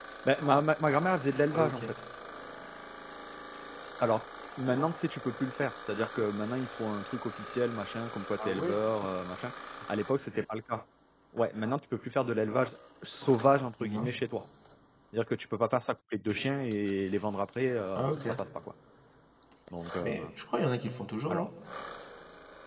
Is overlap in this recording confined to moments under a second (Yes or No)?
Yes